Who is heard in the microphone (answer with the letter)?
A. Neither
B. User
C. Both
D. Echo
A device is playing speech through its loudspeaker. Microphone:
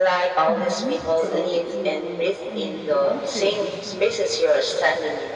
C